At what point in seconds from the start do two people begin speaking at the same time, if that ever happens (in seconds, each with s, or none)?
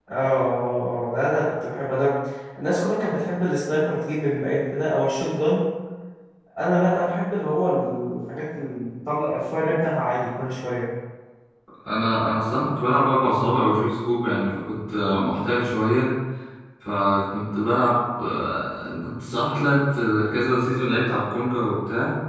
none